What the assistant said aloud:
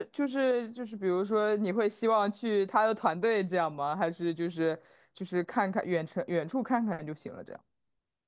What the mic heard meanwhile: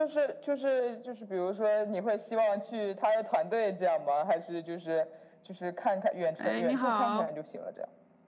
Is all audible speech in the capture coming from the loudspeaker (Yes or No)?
No